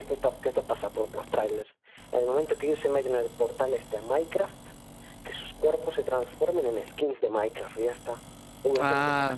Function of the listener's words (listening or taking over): taking over